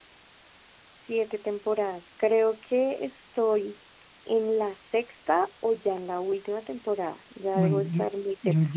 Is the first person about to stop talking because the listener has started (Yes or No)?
Yes